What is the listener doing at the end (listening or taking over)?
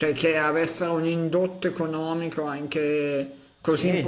taking over